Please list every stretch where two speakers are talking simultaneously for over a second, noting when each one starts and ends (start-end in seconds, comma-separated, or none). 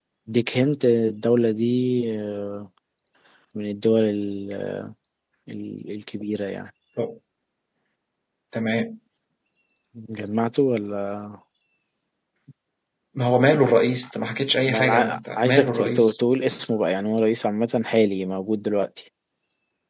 14.7-16.1